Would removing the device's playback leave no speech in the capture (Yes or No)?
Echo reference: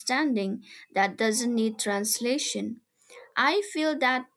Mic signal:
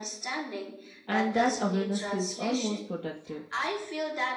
No